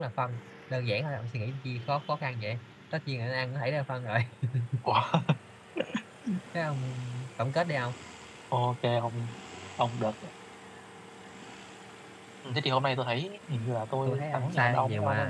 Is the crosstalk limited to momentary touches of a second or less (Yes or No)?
No